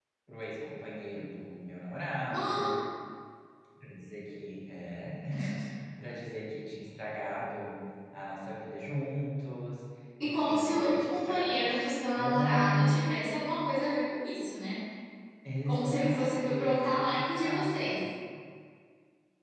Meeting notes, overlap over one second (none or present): present